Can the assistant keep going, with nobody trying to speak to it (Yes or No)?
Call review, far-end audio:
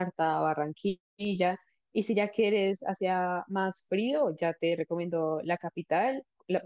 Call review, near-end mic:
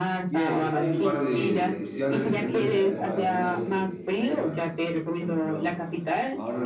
No